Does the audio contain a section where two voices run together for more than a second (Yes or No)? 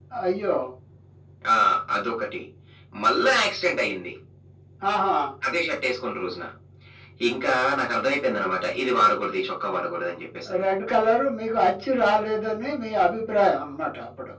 No